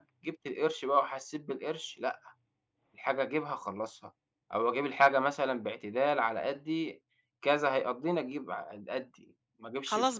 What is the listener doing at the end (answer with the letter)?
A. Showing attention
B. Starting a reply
B